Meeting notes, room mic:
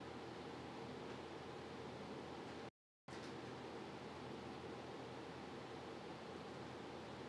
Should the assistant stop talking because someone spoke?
No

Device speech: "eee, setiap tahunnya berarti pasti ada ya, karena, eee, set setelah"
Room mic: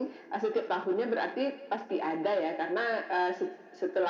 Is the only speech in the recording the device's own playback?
Yes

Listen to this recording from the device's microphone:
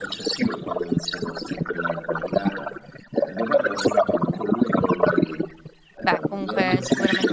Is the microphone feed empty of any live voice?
No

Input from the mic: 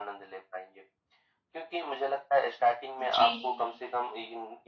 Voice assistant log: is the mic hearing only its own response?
No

